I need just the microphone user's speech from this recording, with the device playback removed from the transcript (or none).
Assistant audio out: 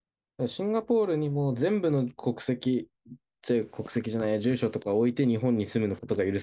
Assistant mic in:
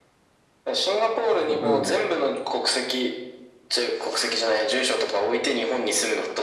ハフ、うん。